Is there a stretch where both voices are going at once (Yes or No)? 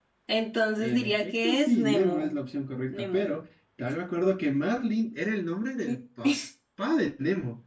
Yes